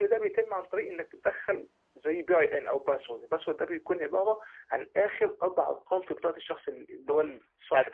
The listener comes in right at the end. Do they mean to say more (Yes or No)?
Yes